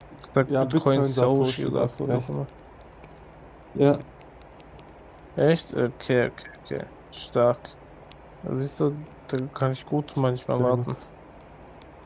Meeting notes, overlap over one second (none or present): present